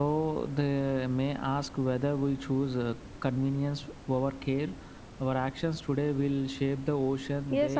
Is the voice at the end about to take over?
Yes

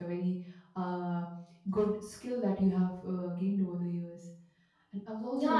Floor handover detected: Yes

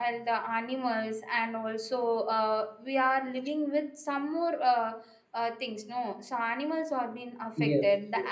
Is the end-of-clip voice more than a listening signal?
No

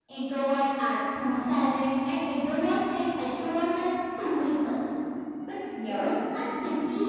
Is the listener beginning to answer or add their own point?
No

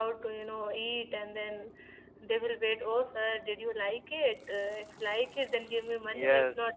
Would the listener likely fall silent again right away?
No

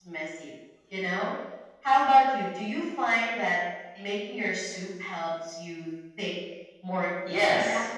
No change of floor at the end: No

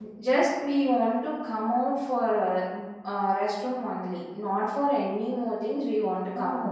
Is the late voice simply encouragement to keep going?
No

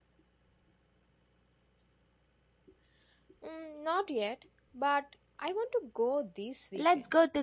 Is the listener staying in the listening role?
No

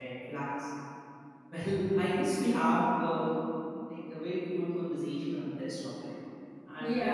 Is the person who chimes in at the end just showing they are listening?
No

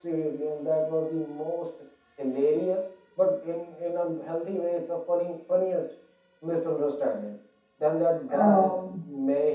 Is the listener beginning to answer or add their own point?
No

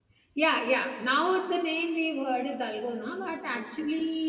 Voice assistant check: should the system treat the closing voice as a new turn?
No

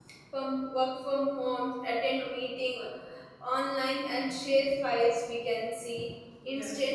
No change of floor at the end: Yes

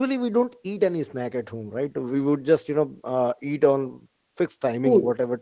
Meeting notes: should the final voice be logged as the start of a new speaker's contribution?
No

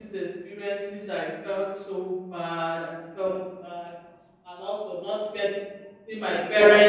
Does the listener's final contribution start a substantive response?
No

